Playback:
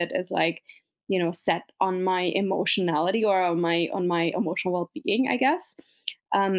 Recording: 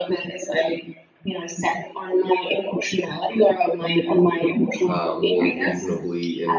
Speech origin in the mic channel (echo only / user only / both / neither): both